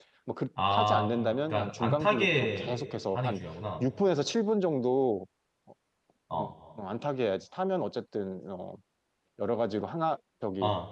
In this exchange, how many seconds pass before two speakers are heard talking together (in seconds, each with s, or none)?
0.7 s